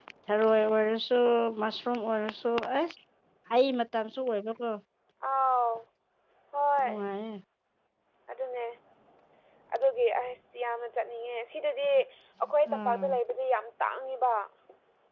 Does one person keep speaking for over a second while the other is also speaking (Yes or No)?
No